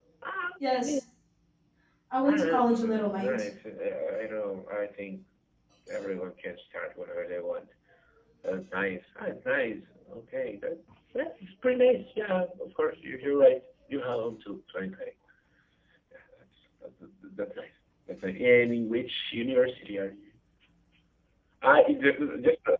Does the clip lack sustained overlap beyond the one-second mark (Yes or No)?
No